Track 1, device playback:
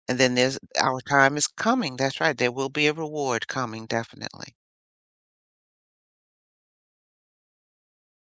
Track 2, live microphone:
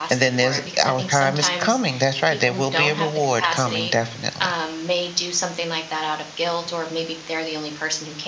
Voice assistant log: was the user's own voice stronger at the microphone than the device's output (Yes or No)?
No